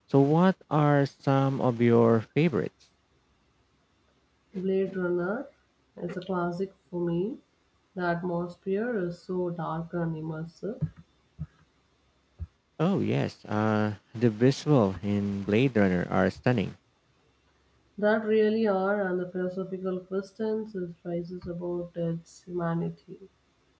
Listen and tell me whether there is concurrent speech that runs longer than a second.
No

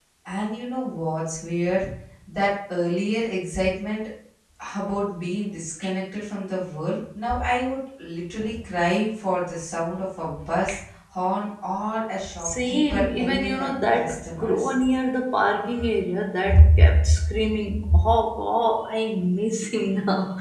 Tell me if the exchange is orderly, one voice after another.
No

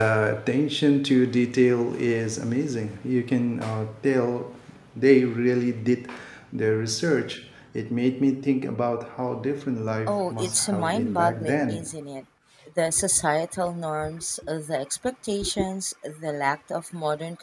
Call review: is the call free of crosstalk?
No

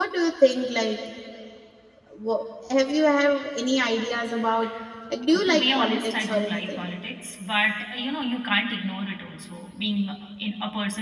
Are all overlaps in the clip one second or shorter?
No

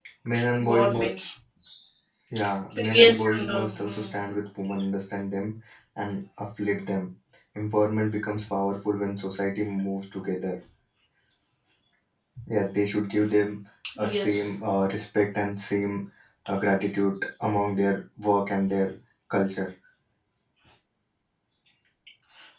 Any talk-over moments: Yes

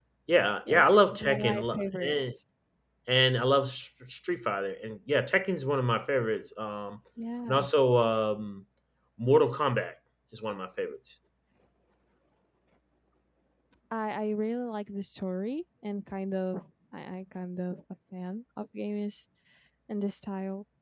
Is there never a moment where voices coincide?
No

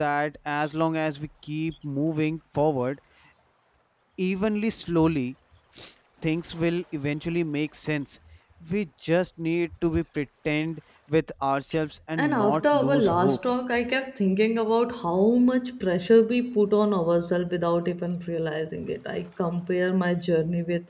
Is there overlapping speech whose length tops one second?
Yes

